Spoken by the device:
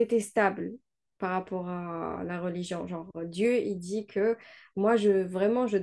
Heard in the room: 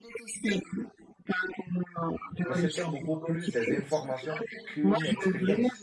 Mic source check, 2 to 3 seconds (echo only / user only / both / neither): both